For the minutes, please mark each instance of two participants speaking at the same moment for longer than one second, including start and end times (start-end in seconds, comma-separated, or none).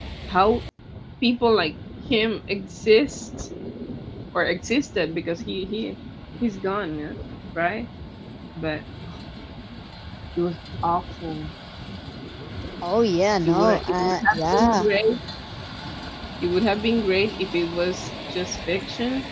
13.4-14.9